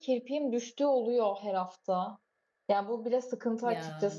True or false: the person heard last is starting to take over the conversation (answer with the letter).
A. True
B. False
B